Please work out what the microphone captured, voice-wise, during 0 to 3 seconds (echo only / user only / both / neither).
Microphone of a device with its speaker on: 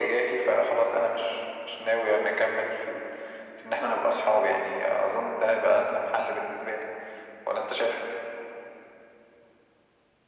echo only